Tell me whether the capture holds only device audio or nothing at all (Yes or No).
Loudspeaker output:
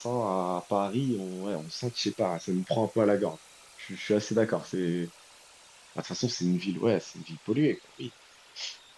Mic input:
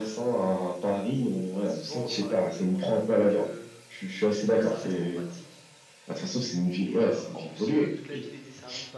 No